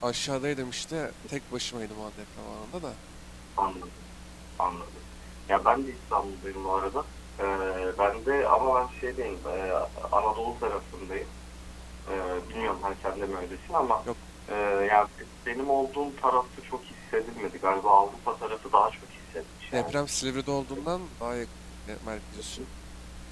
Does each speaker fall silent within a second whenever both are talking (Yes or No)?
Yes